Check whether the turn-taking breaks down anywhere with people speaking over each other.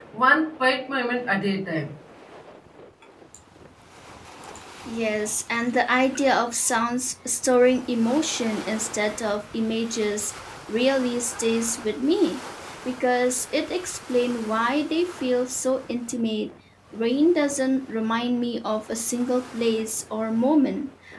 No

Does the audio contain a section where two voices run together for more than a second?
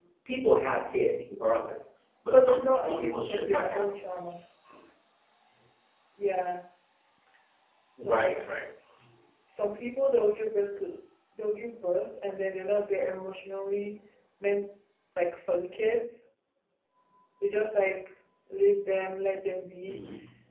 Yes, from 2.3 s

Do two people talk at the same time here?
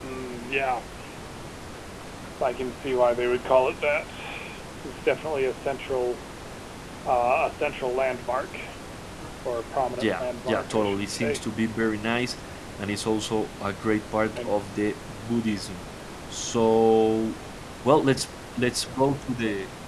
Yes, from 10.0 s

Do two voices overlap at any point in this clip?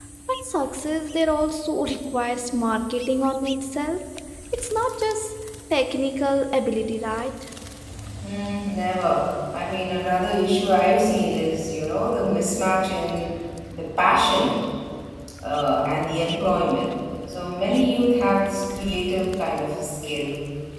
No

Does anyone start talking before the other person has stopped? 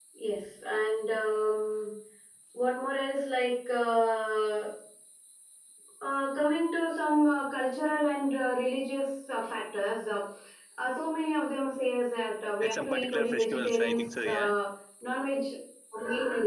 Yes, from 12.6 s

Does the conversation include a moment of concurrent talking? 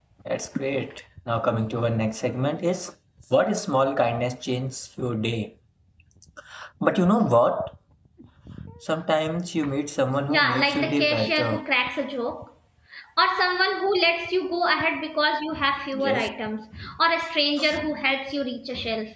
Yes, from 10.3 s

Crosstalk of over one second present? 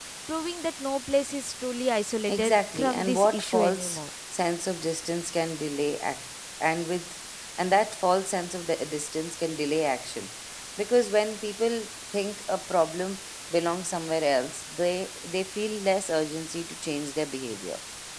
Yes, from 2.3 s

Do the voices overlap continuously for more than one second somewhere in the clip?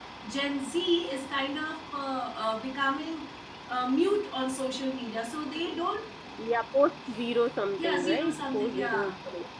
Yes, from 7.8 s

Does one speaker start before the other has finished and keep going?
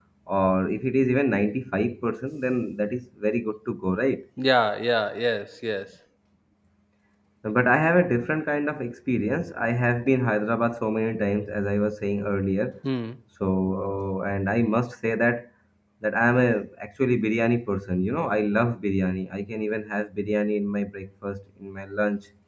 No

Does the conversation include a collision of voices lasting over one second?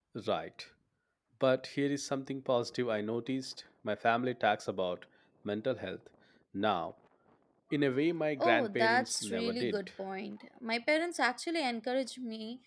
Yes, from 8.4 s

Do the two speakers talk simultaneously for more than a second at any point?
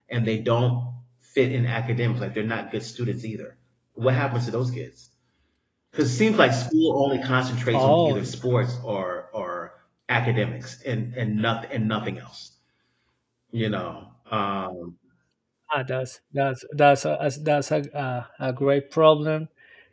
No

